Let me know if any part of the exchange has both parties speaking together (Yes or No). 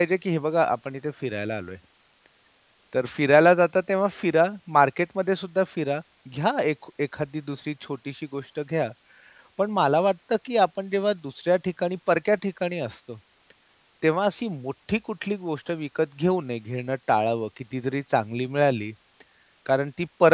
No